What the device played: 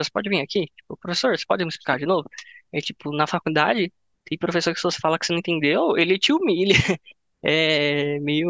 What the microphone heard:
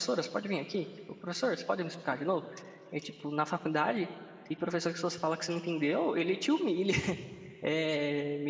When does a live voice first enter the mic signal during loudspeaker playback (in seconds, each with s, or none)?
none